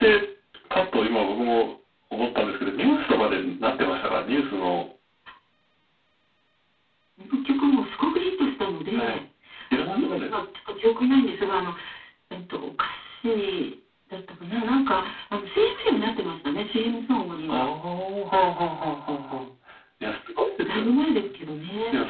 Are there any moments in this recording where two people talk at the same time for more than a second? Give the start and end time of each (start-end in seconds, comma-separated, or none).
none